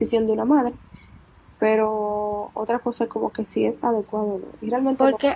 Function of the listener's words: taking over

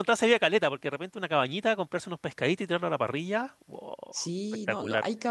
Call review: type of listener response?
taking over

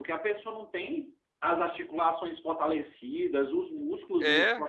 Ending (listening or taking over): listening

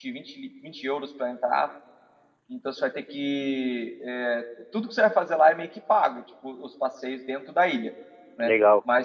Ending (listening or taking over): listening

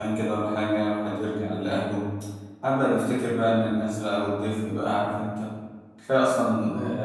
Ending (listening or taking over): listening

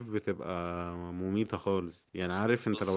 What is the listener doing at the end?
listening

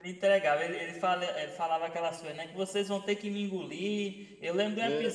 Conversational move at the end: listening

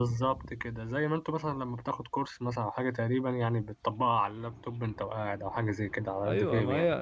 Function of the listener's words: taking over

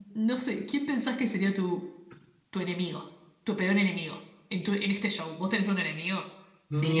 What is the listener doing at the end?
taking over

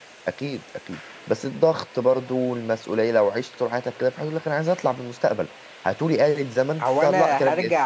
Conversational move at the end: taking over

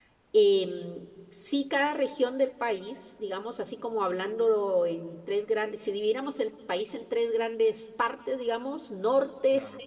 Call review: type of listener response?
listening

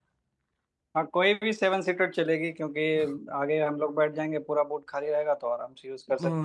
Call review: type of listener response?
taking over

